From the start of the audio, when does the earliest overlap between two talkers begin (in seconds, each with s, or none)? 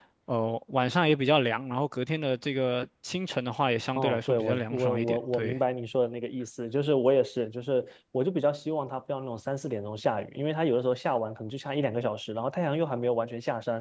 4.0 s